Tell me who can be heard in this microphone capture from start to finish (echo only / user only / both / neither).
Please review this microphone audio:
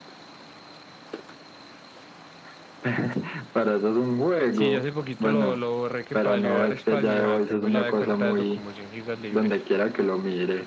both